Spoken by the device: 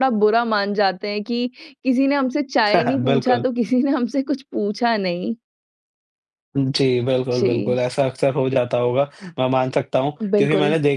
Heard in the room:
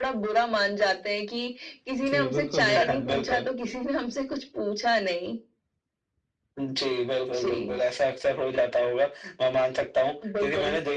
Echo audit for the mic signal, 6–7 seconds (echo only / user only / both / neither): echo only